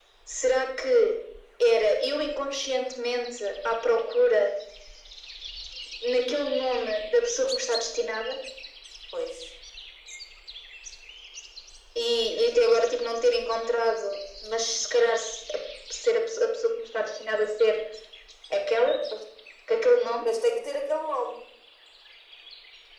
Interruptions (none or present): none